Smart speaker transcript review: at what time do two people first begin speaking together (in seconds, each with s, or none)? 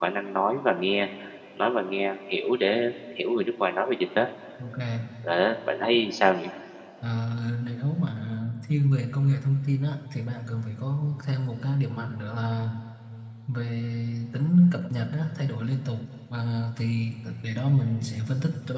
none